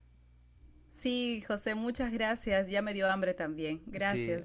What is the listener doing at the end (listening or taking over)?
taking over